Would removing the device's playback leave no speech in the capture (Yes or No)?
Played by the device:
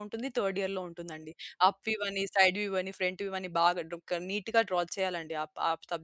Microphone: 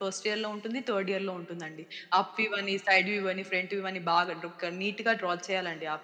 Yes